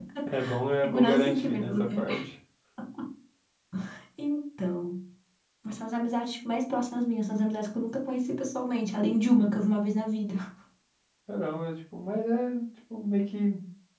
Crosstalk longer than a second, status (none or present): present